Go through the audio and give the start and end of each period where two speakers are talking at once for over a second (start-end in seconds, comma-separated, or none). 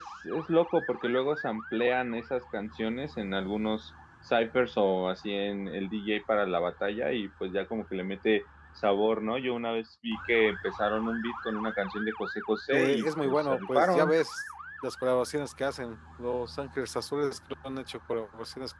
12.7-14.1